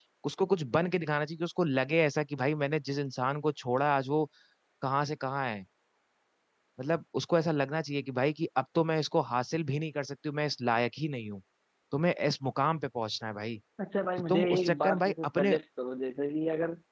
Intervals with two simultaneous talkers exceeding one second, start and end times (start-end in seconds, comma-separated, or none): 14.3-15.6